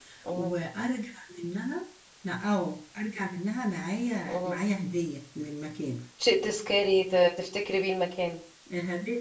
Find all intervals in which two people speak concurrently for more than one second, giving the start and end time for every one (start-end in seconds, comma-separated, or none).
none